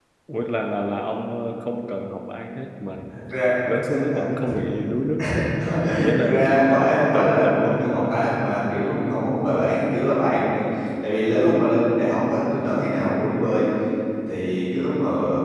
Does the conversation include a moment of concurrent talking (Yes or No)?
Yes